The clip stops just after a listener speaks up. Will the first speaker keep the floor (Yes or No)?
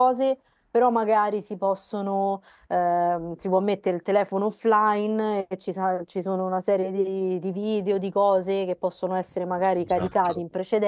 Yes